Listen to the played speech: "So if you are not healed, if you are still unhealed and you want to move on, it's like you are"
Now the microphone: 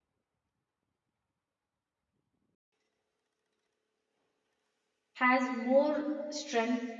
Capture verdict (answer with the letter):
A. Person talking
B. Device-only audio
A